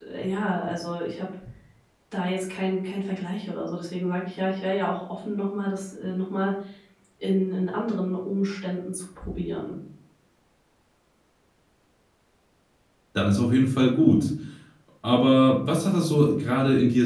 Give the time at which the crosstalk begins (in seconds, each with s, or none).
none